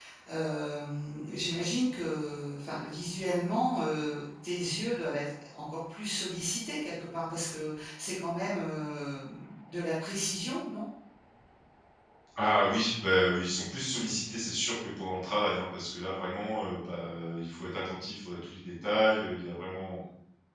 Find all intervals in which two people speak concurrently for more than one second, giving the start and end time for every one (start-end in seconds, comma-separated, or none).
none